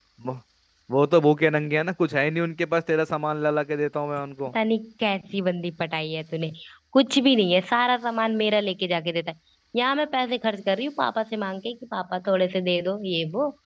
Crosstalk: none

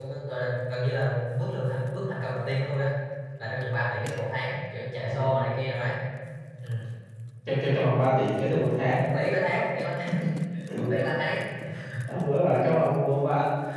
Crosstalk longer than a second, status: none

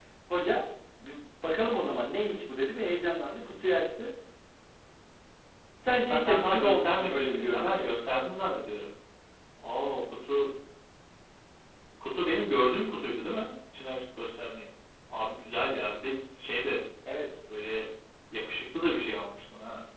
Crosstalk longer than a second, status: present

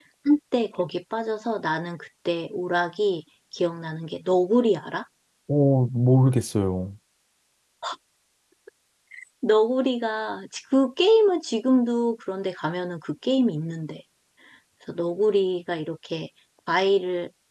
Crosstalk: none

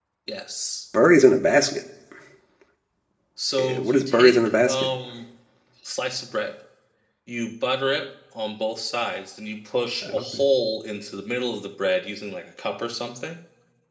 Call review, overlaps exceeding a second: present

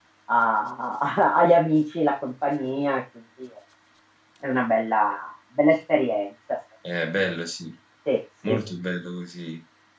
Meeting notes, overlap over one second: none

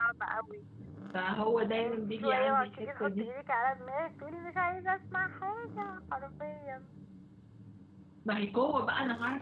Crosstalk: present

